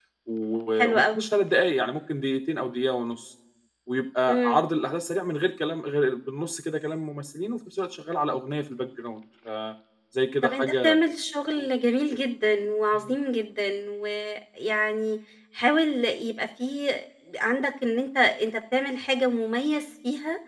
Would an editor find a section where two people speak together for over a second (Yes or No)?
No